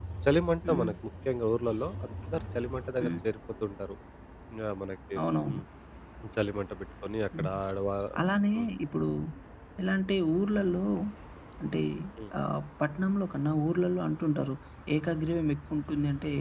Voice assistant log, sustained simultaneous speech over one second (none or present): none